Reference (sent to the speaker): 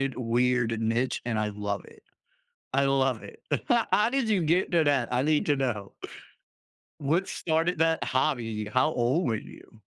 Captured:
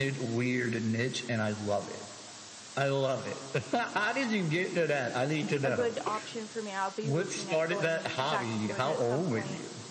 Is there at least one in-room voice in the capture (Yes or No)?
Yes